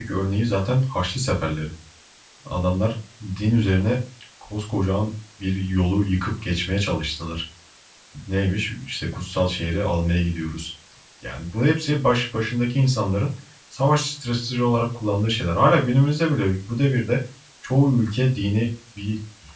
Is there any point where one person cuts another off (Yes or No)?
No